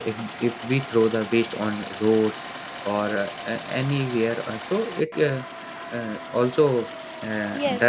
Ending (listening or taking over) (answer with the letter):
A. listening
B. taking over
B